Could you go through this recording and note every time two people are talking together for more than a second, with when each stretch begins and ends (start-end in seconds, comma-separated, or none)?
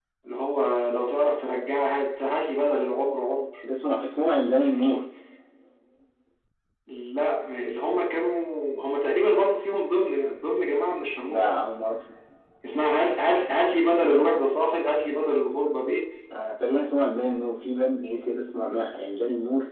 none